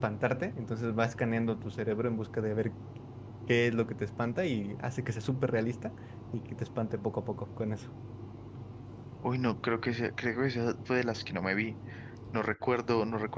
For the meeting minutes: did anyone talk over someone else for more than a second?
No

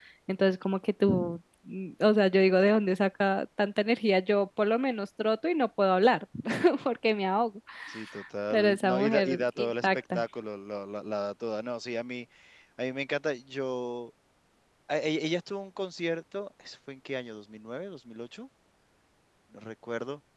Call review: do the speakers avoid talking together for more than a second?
No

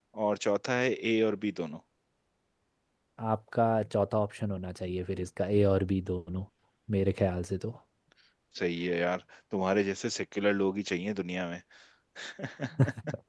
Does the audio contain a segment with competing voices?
No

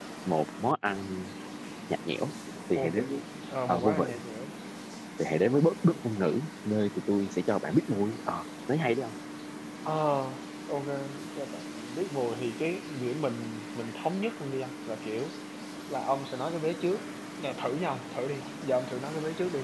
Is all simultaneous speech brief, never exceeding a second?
Yes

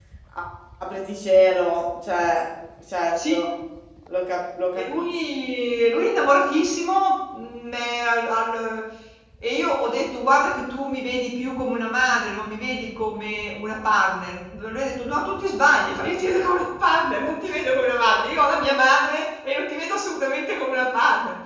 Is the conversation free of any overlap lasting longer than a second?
Yes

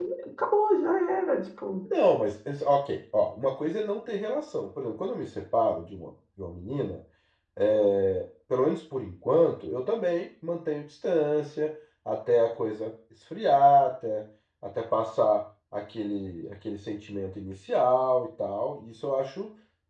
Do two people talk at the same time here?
No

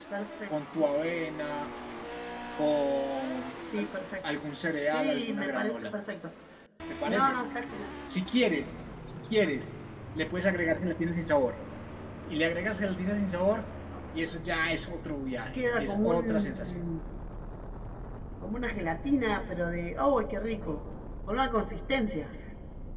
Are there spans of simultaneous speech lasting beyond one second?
Yes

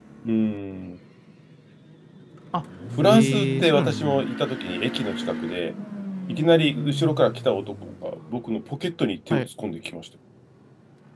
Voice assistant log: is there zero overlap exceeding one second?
No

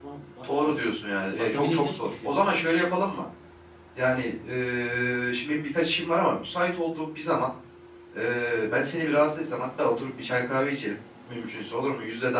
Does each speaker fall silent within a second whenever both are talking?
No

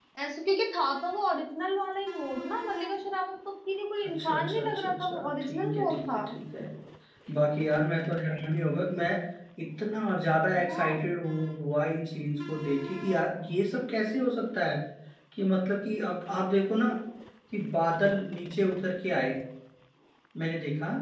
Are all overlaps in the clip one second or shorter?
No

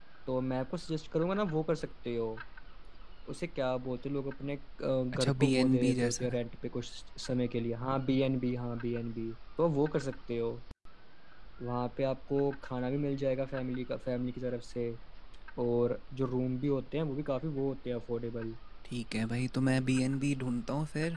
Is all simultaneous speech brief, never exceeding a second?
No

